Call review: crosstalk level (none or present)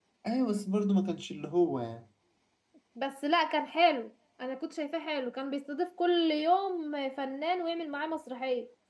none